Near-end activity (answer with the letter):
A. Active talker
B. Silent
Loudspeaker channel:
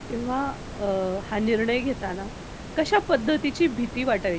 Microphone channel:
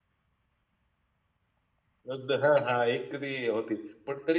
A